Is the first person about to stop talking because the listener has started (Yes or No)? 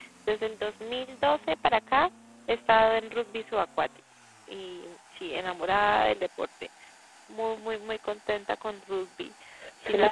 Yes